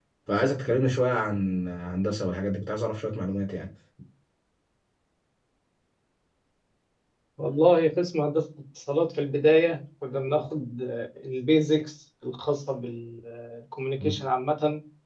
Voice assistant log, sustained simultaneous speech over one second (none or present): none